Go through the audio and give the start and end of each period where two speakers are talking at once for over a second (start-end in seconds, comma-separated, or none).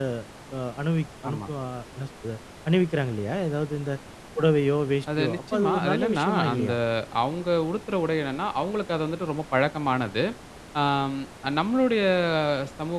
5.2-6.7